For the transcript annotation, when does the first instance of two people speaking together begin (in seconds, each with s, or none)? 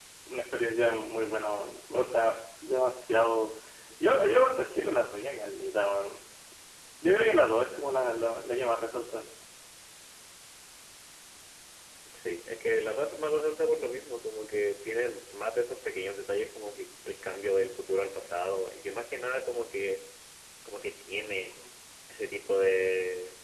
none